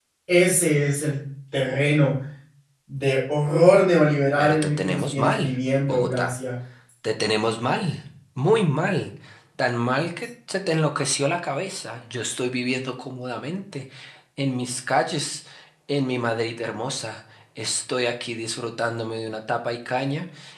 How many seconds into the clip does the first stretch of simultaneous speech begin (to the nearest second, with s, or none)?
4 s